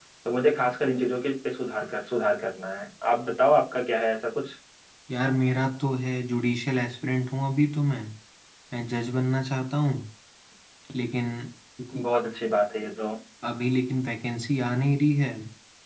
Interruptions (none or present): none